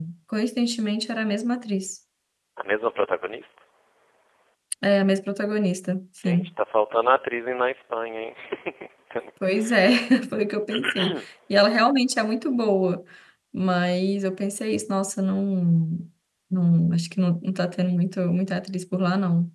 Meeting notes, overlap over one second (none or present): none